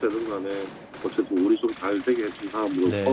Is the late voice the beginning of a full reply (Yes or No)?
Yes